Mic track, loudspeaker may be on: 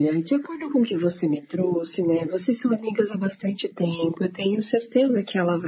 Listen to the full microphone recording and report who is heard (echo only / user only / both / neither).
echo only